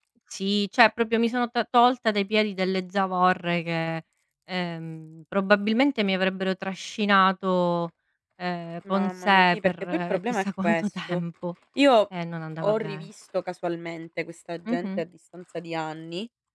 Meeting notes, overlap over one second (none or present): present